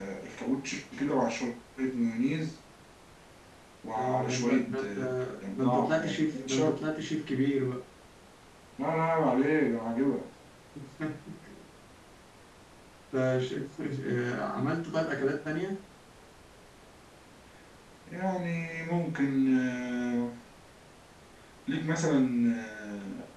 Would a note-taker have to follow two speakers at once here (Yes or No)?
Yes